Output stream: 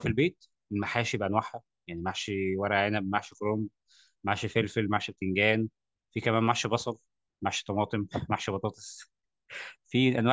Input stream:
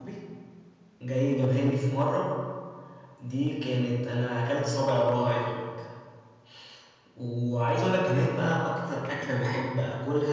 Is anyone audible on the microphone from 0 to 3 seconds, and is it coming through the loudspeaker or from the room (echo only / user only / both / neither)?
user only